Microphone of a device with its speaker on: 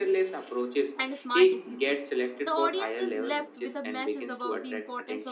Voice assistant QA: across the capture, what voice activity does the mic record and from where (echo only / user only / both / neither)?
both